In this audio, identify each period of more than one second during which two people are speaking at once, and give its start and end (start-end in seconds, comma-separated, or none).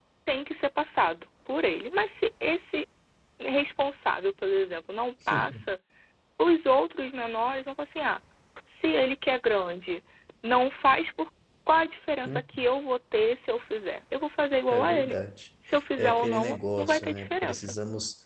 16.0-17.8